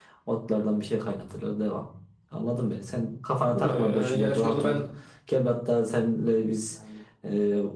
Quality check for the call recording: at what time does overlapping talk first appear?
3.5 s

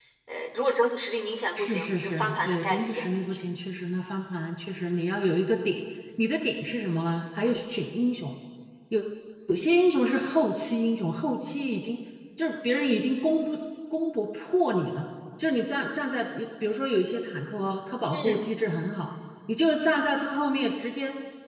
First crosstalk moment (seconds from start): 1.6 s

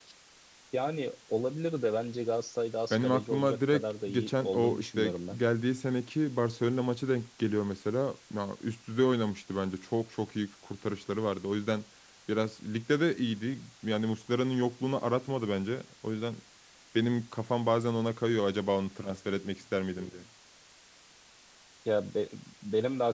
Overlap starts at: 2.9 s

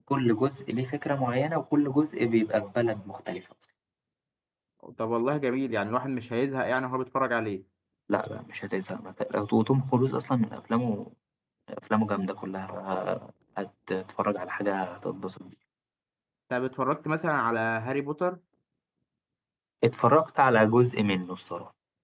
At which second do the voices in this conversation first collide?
none

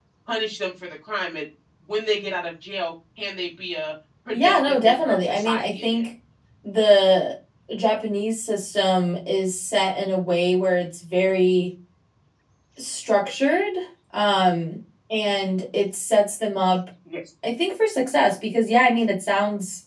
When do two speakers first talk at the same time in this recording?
4.3 s

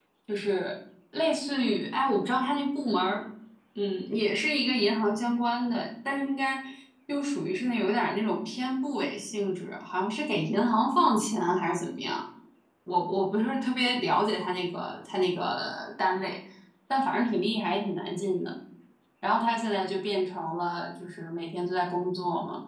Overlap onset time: none

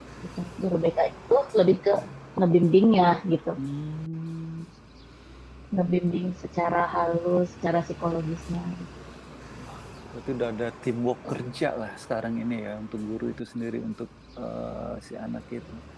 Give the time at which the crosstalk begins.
none

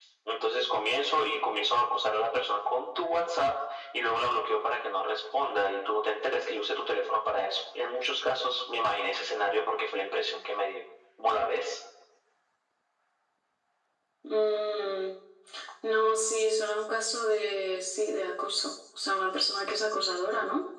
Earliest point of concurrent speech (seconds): none

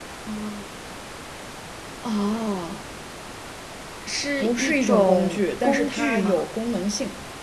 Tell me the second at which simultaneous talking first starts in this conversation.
4.4 s

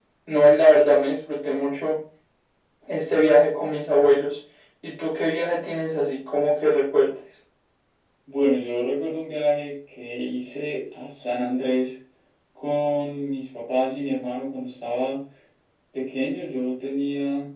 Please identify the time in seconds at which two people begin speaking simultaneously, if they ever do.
none

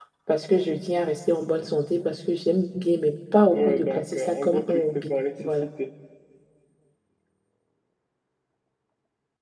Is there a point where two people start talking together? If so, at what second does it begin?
3.5 s

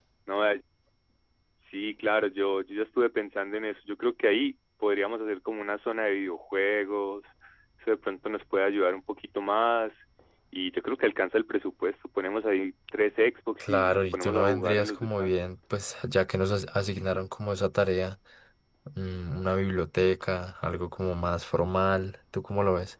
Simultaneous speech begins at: 13.6 s

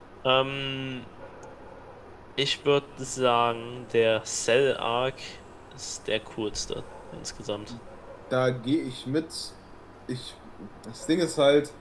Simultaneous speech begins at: none

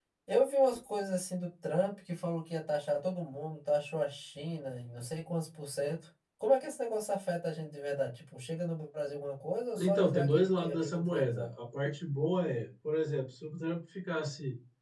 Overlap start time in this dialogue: 9.8 s

